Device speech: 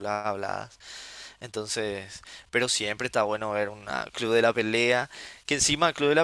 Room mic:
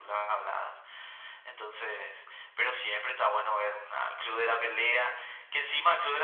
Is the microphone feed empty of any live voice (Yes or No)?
Yes